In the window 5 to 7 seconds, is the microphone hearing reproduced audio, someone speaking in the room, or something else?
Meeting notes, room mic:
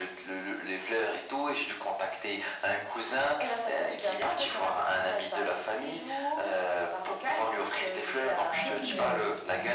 echo only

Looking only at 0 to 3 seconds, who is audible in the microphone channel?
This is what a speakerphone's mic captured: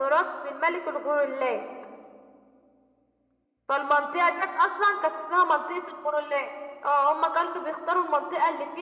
echo only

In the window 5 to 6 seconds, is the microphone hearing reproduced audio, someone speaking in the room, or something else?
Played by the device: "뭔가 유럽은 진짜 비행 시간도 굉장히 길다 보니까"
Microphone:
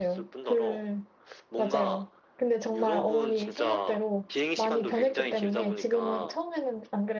both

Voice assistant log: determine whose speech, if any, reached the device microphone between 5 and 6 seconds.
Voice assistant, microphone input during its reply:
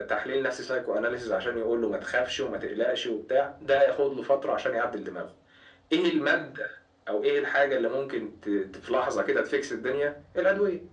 echo only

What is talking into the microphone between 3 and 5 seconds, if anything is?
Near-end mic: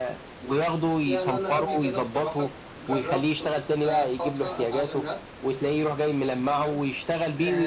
both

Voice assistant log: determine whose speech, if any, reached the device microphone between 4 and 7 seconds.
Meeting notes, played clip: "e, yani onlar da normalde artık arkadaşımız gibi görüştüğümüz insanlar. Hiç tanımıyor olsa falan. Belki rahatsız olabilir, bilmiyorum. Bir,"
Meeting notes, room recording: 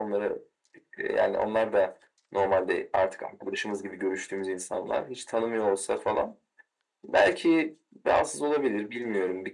echo only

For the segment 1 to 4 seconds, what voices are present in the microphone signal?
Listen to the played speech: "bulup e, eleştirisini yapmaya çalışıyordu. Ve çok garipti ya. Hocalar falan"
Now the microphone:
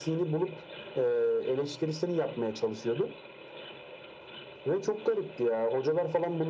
echo only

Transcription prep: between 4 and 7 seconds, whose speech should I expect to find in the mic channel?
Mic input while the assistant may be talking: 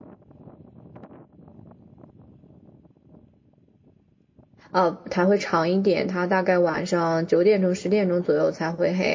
user only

